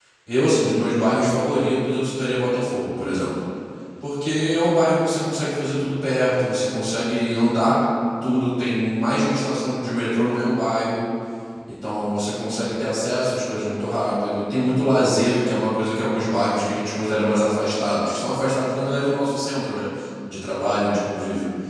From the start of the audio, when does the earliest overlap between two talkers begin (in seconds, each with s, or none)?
none